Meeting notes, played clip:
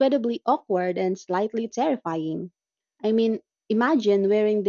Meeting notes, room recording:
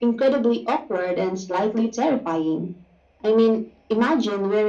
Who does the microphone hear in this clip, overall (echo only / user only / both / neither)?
echo only